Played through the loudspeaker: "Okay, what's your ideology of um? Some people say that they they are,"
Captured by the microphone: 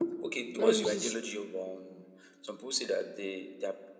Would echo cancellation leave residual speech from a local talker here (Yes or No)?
Yes